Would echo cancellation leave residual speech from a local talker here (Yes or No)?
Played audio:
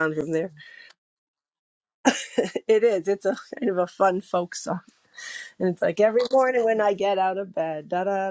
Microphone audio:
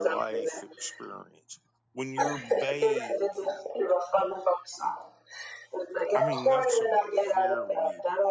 Yes